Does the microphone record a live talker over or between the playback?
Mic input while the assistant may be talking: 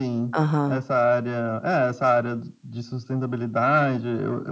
Yes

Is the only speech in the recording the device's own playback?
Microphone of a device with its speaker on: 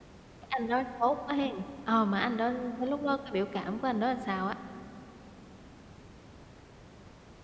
No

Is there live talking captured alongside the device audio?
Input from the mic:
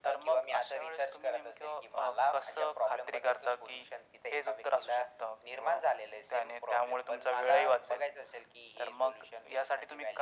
No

